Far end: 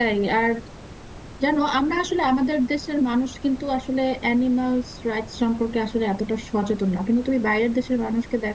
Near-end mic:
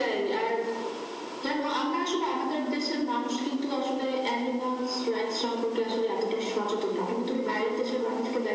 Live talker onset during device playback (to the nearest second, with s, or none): none